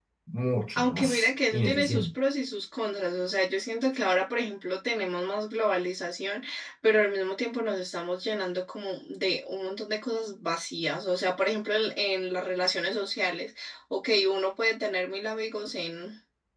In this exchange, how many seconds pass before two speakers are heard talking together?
0.8 s

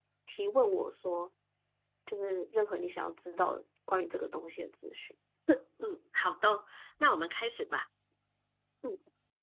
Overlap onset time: none

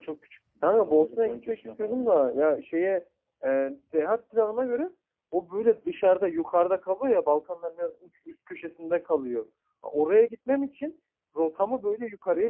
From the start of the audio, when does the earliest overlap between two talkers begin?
0.6 s

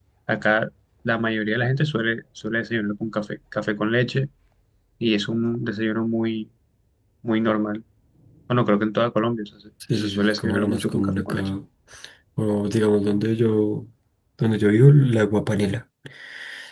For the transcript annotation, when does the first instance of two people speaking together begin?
9.9 s

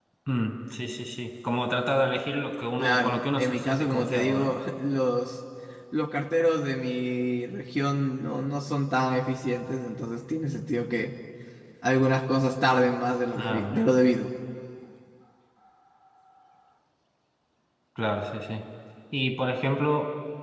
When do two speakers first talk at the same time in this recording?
2.8 s

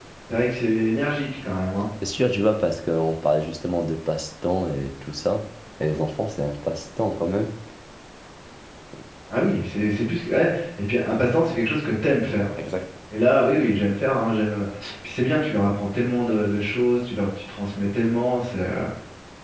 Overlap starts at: none

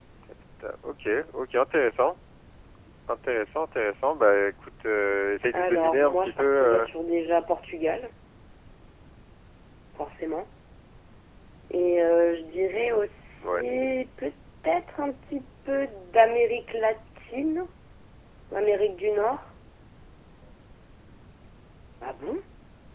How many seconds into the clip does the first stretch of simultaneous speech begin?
5.5 s

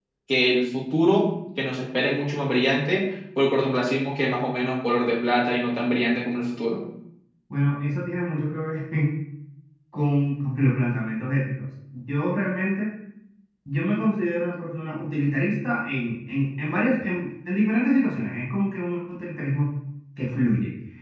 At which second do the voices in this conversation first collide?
none

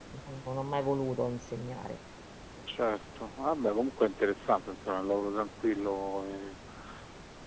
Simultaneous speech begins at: none

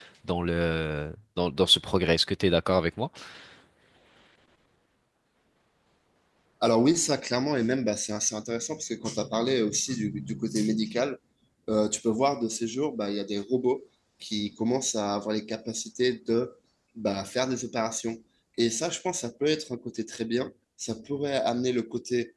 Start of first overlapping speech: none

